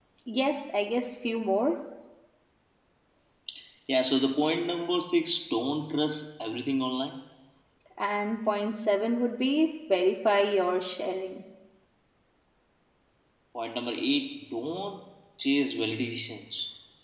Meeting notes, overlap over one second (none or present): none